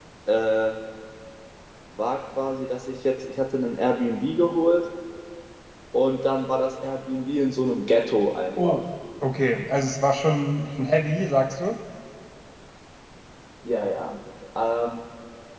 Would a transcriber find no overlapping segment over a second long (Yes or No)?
Yes